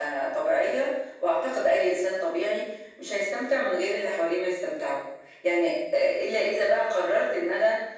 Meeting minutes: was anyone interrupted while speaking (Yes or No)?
No